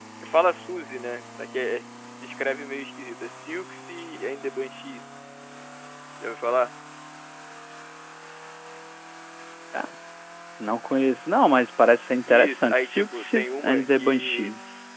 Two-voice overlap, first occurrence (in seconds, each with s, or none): 12.3 s